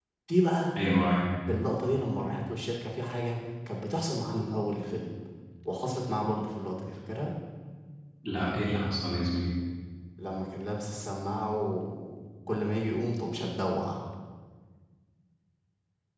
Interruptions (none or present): none